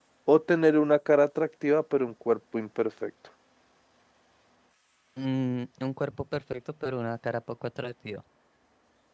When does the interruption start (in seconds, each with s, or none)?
none